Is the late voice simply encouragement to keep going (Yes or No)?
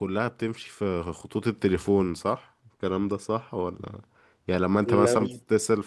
Yes